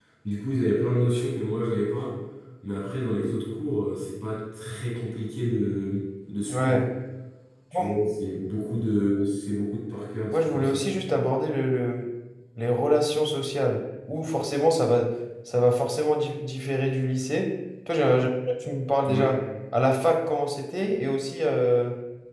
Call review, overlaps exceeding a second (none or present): none